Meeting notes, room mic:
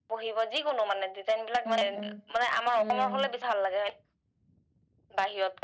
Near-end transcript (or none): উম উম উম